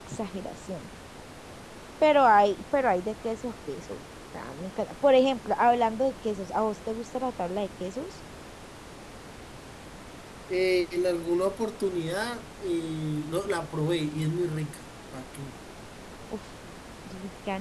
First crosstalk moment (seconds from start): none

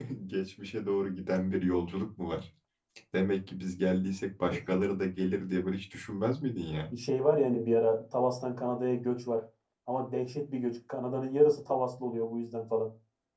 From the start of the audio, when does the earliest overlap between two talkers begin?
none

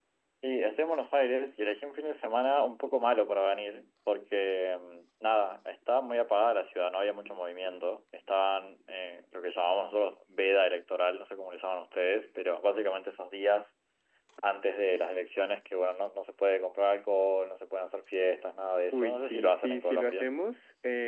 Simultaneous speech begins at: 19 s

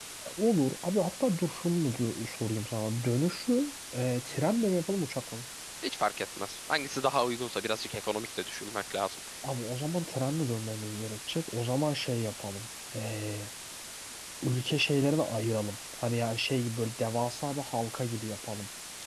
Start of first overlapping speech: none

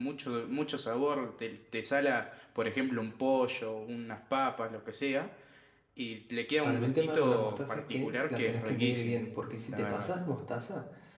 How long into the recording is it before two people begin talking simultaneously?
7 s

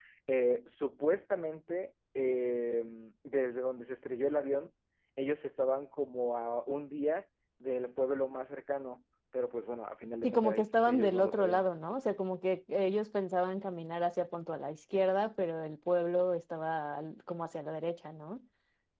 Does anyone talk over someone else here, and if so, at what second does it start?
10 s

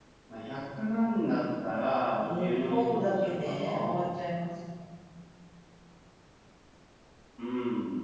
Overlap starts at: 2 s

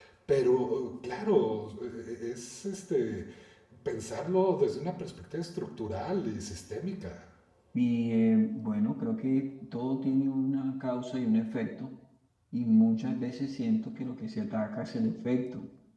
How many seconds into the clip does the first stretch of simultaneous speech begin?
none

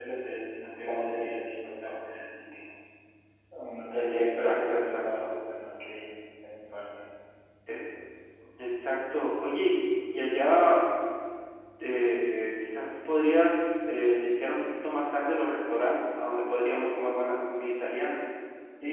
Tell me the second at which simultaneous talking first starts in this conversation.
4 s

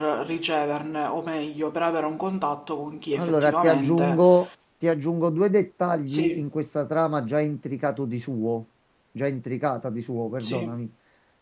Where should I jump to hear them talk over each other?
3 s

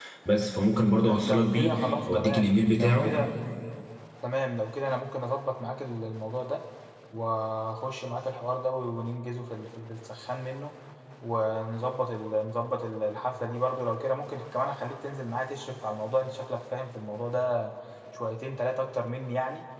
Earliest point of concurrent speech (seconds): 1 s

